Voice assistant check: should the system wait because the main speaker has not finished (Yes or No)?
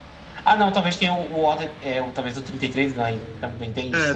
No